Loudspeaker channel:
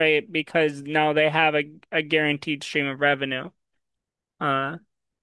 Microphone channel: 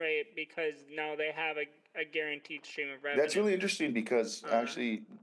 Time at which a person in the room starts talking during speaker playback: 3.1 s

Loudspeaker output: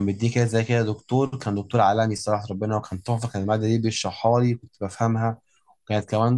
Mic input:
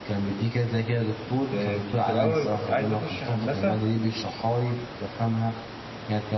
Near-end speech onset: 1.3 s

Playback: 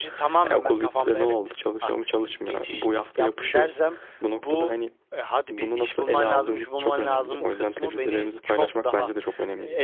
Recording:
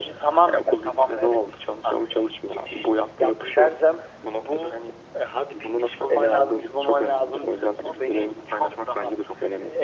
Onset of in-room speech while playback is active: none

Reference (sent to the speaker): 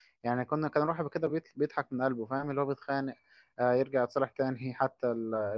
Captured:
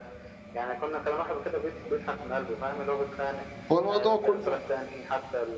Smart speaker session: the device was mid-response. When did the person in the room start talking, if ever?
3.7 s

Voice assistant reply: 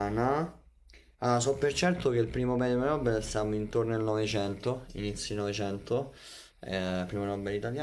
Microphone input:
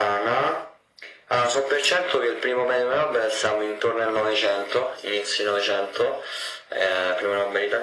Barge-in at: none

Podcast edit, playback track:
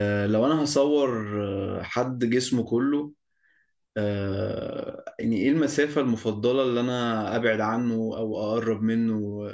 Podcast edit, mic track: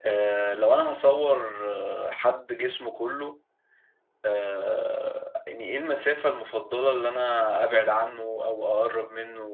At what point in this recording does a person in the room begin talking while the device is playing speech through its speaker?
none

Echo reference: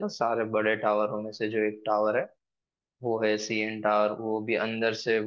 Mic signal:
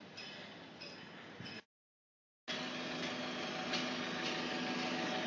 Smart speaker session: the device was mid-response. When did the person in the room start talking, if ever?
none

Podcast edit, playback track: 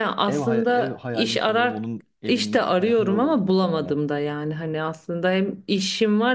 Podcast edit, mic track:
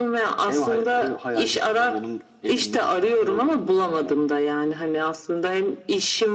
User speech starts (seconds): none

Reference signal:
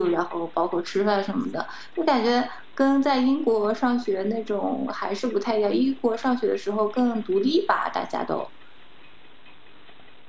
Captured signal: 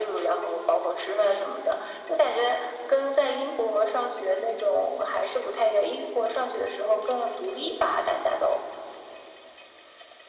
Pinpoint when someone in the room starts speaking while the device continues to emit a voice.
none

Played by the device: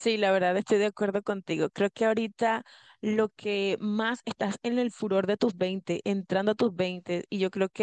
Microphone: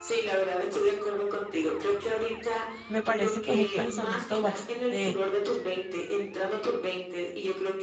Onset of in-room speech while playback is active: 2.9 s

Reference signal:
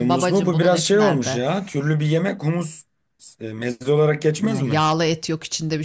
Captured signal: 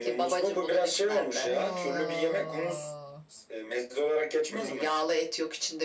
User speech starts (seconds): 1.4 s

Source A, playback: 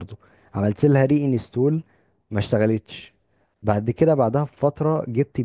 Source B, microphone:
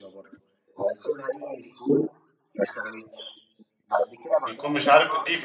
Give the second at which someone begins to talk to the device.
4.5 s

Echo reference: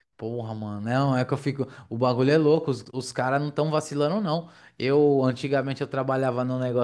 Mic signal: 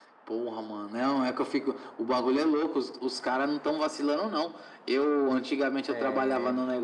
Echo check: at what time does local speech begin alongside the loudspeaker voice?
5.9 s

